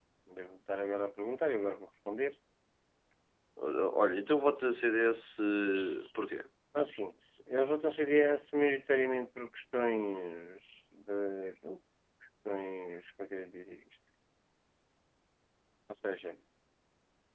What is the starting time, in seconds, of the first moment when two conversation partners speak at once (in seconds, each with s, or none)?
none